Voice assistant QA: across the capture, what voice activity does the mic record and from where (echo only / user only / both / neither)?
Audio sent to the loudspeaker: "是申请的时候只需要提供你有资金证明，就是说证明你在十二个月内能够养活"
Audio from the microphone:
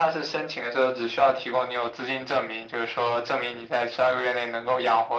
echo only